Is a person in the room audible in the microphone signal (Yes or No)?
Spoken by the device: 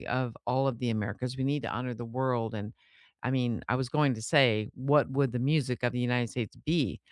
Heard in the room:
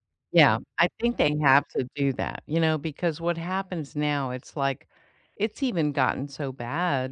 Yes